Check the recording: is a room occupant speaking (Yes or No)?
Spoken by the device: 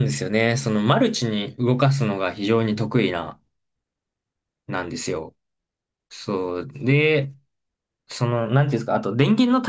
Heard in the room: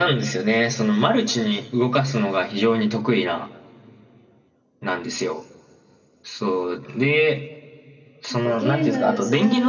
Yes